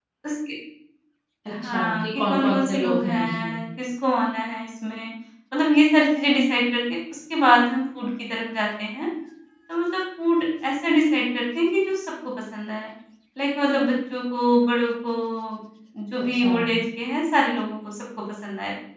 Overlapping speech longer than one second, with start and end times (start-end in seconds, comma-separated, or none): 1.5-3.6